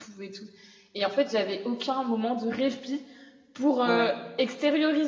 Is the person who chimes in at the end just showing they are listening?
Yes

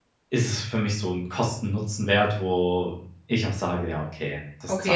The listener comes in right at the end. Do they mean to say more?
Yes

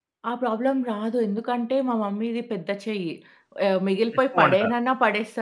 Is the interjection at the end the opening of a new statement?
No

